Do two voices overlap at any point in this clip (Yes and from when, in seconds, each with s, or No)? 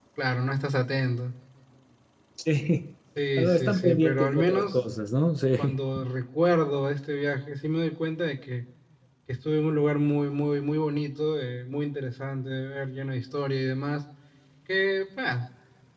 Yes, from 3.4 s